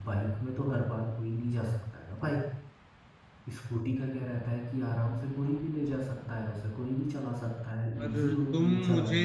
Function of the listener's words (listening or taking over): taking over